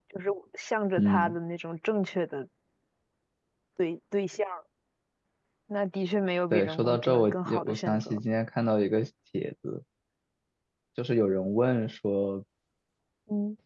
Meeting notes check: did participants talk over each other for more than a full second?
Yes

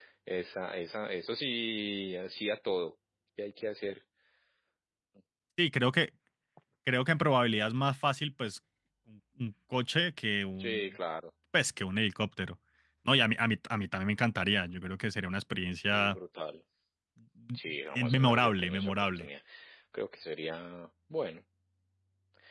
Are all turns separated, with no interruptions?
No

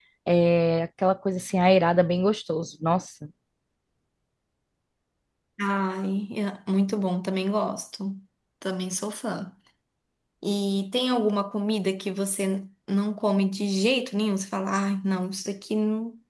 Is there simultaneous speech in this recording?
No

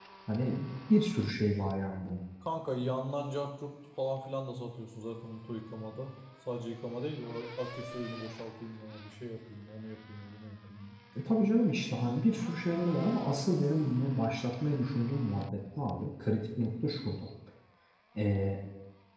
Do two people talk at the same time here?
No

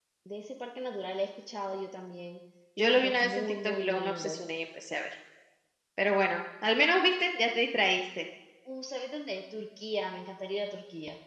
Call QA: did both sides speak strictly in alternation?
No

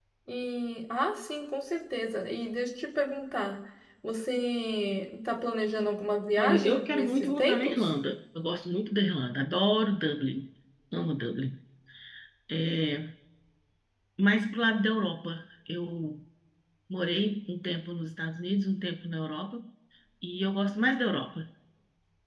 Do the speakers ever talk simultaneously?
Yes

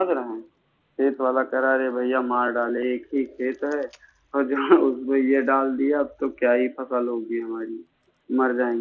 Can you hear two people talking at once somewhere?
No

